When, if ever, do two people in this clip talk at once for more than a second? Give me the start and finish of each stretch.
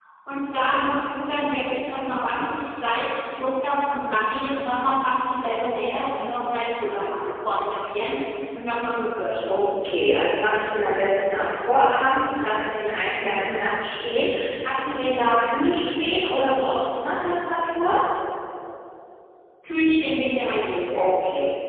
none

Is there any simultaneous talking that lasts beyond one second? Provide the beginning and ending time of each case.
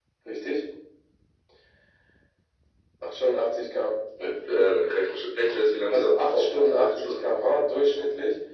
5.9-7.2

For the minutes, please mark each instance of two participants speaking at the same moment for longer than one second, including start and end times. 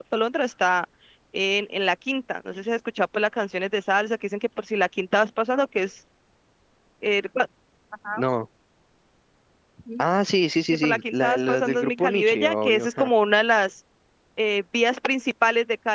10.8-13.1

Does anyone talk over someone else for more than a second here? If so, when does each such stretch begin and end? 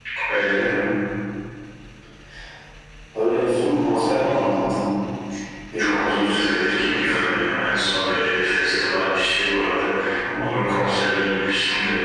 5.8-7.4

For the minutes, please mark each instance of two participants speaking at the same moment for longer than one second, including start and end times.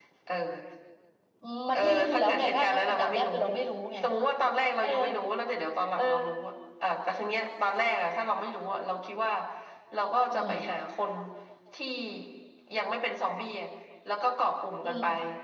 1.7-3.3

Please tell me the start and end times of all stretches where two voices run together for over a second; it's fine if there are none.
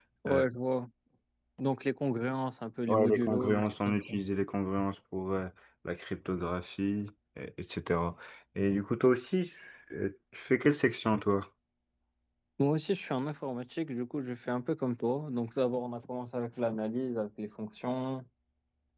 2.9-4.1

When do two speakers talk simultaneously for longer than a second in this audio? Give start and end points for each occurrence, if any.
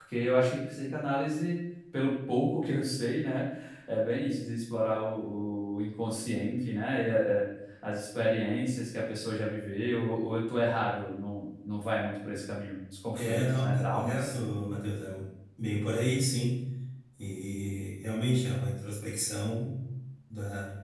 13.2-14.4

